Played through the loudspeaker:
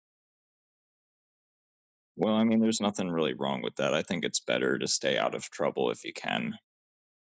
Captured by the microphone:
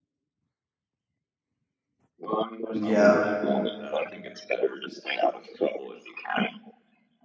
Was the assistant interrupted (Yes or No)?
Yes